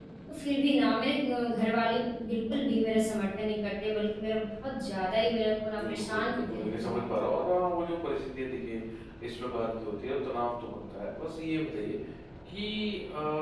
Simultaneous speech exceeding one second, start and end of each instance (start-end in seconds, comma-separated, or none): 5.8-7.1